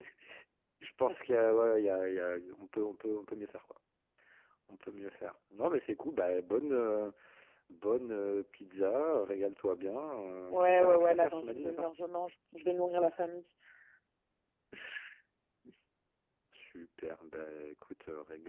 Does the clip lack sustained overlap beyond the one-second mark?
No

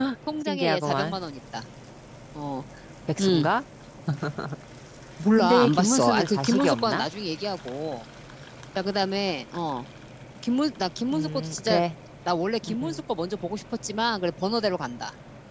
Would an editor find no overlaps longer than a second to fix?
No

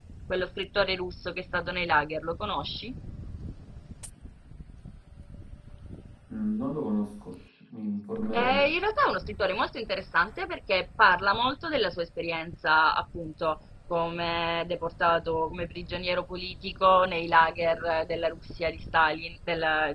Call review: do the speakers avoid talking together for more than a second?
Yes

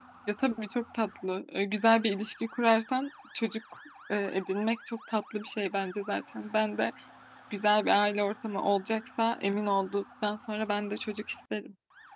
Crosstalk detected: No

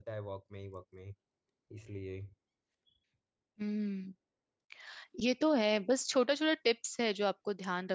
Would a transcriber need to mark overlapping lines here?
No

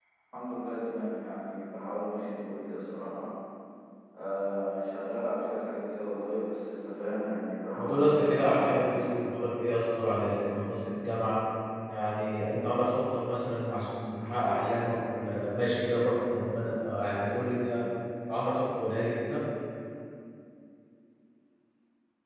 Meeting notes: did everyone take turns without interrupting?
No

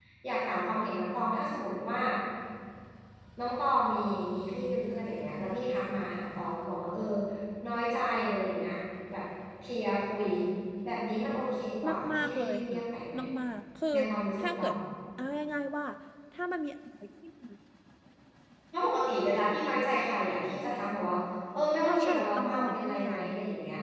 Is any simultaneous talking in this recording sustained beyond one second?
Yes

